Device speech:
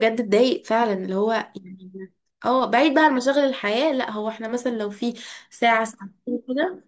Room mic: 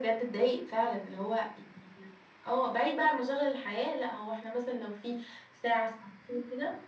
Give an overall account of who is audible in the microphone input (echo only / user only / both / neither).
echo only